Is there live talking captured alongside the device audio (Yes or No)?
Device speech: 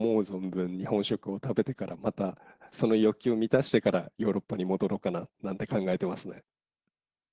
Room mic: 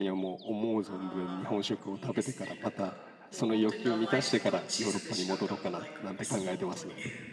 Yes